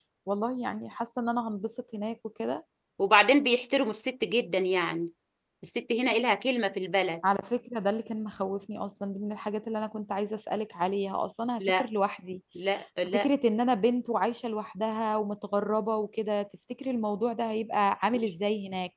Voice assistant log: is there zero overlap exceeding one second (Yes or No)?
Yes